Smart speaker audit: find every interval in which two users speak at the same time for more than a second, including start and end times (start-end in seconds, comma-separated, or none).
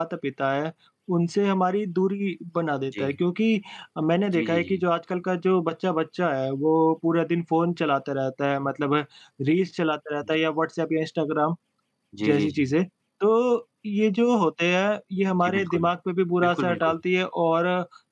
none